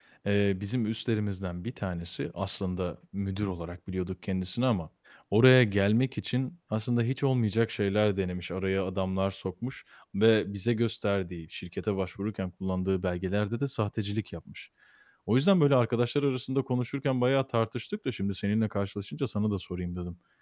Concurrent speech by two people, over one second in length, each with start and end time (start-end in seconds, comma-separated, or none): none